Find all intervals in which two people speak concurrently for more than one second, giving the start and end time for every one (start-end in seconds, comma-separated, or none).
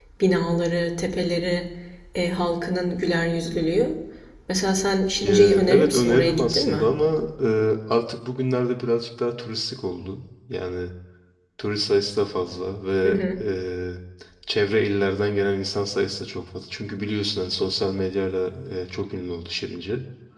5.2-6.9